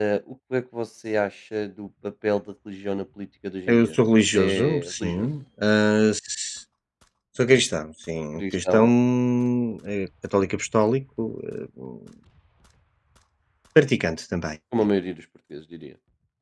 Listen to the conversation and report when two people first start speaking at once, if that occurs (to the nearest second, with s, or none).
4 s